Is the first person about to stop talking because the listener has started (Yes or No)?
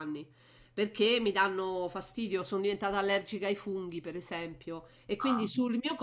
No